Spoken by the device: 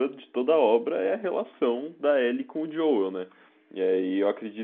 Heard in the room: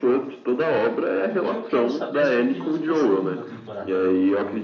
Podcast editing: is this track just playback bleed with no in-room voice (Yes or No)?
No